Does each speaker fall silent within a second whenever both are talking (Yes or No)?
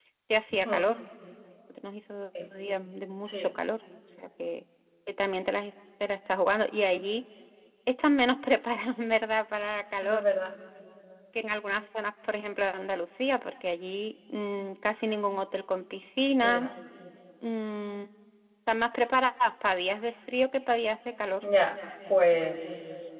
Yes